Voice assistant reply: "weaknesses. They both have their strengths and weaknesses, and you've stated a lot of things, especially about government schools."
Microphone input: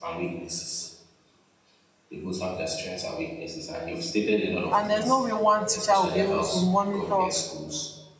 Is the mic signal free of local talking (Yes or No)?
No